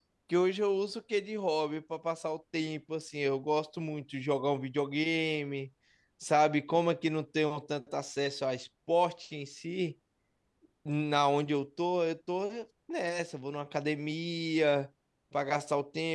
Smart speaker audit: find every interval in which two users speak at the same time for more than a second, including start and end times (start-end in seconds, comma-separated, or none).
none